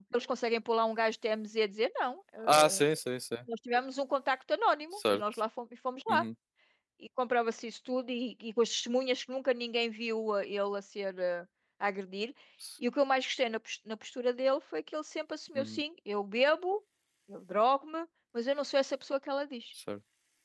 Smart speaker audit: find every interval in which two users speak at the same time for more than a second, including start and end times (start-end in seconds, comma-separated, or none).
none